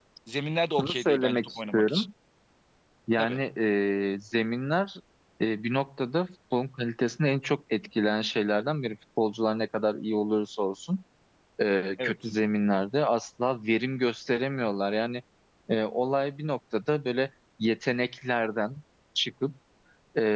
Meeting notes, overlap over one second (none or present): present